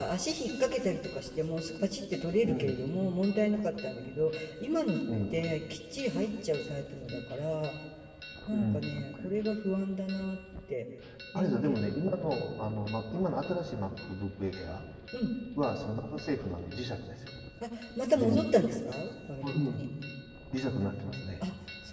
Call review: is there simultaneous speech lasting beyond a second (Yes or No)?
No